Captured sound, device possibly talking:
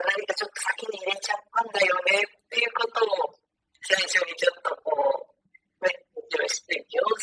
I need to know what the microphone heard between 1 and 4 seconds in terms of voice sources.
echo only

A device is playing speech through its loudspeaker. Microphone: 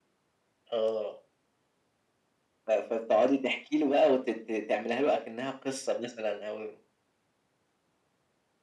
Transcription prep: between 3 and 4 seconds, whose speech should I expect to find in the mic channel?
echo only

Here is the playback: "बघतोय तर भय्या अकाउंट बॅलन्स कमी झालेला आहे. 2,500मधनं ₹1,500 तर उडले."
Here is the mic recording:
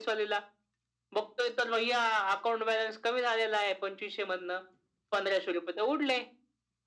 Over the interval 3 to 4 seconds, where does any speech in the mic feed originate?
echo only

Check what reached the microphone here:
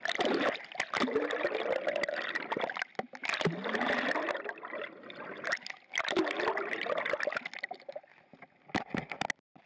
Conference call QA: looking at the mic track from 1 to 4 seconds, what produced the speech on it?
neither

